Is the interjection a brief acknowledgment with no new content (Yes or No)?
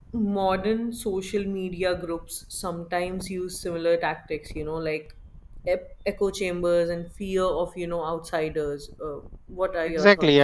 No